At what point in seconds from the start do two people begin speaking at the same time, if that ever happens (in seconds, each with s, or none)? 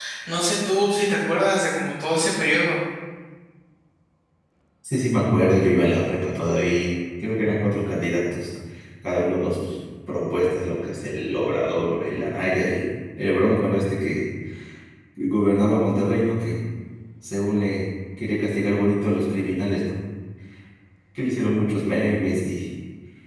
none